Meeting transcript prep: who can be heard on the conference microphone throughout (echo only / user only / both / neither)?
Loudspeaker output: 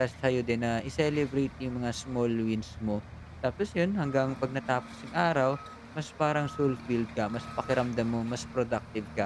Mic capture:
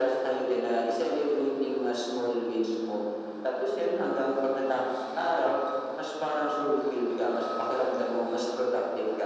echo only